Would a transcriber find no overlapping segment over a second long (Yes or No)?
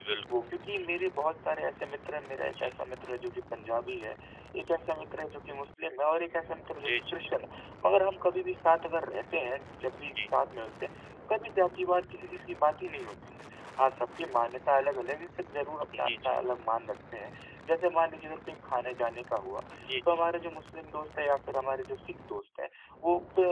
Yes